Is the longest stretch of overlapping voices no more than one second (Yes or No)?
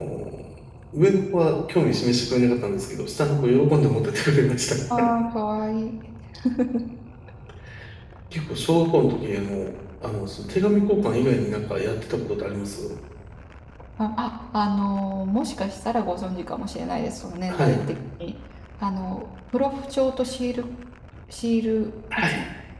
Yes